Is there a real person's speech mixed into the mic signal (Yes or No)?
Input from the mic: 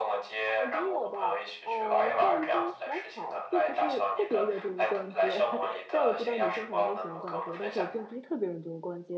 Yes